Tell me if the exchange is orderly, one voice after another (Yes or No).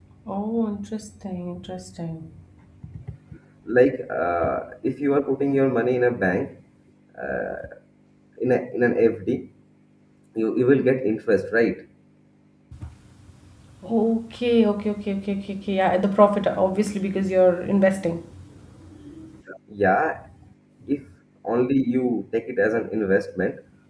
Yes